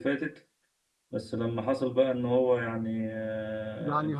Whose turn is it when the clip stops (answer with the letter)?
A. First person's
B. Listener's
A